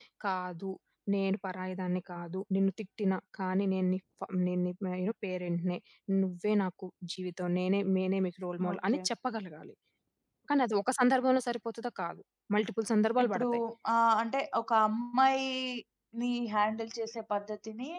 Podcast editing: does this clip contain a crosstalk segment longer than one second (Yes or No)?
No